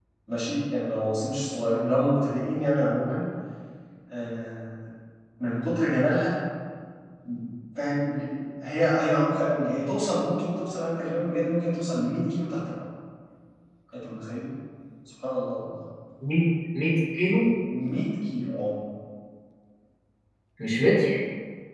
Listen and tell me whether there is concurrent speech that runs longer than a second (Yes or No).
No